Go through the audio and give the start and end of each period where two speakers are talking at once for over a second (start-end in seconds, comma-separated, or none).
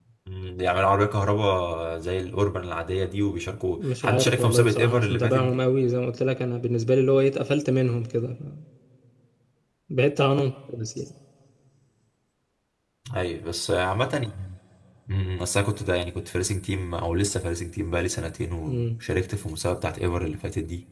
3.8-5.6